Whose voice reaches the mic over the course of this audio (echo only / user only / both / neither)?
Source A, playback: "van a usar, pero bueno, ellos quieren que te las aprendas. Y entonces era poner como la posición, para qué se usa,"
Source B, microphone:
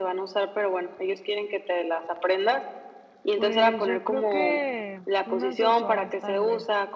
both